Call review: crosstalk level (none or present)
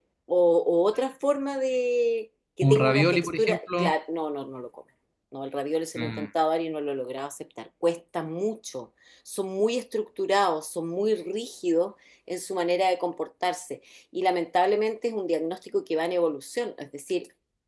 present